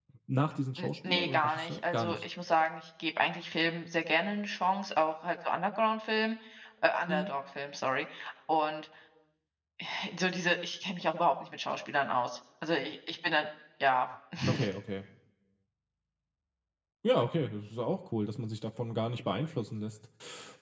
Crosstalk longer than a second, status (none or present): present